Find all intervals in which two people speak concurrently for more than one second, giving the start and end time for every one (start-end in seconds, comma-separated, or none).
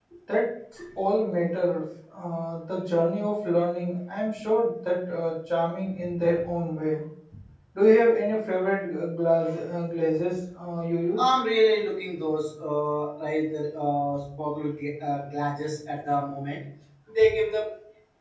none